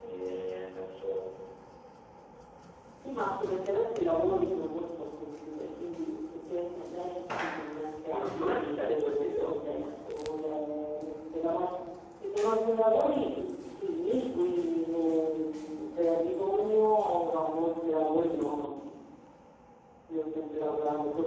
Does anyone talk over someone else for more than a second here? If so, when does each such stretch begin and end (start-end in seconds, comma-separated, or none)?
8.2-9.6